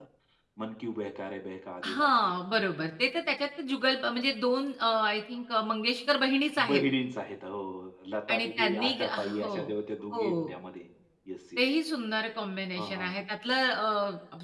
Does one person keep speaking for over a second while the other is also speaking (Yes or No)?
Yes